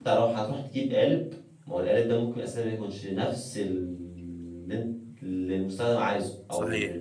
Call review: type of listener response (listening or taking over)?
taking over